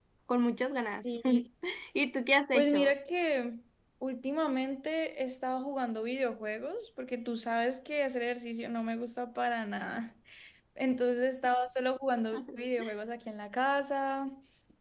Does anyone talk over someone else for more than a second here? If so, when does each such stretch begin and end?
none

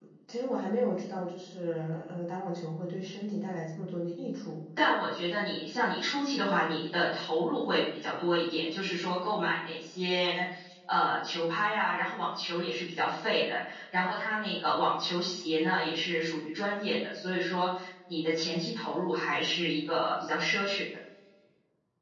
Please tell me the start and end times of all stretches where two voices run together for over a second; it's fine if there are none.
none

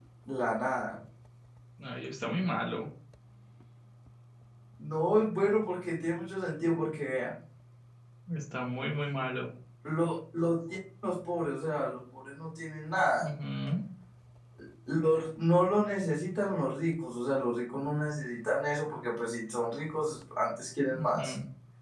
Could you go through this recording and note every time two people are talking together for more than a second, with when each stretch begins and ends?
none

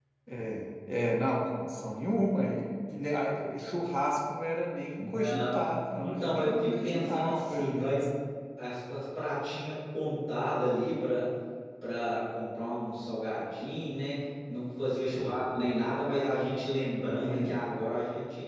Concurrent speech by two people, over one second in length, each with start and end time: 6.0-8.1

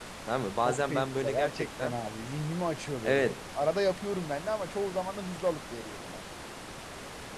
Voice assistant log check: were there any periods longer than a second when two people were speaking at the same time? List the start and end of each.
0.6-1.9

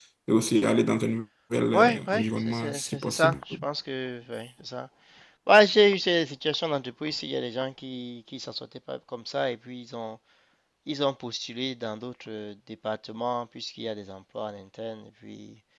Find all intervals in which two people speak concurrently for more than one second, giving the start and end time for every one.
1.7-3.4

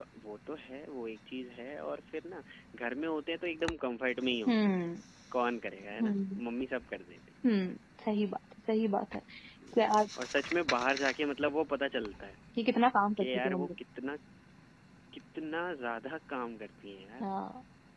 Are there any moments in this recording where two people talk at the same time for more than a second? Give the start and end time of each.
none

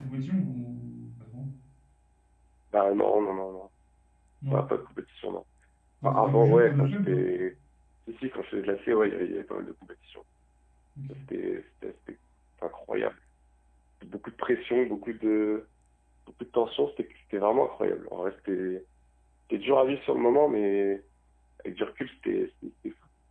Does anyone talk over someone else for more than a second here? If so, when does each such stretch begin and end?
6.0-7.2

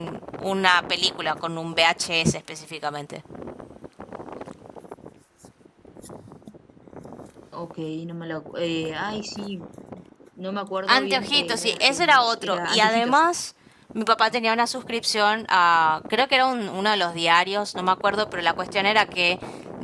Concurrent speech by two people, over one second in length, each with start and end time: 10.9-13.2

